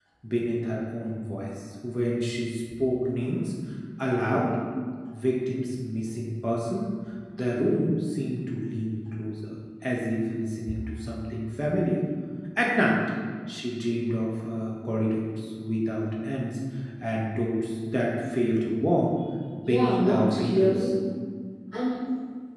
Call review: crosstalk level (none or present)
present